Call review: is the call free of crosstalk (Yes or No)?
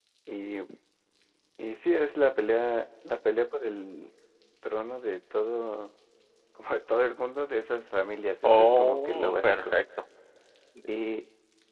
No